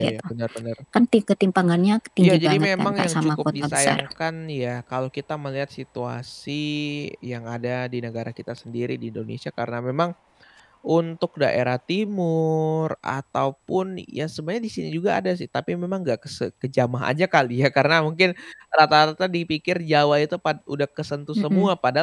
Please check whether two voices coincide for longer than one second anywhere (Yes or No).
Yes